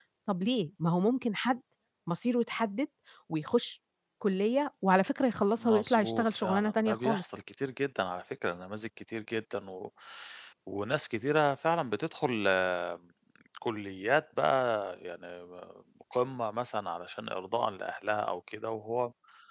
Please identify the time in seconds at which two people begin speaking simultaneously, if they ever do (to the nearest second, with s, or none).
6 s